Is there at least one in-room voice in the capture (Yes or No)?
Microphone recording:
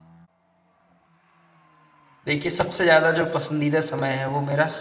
Yes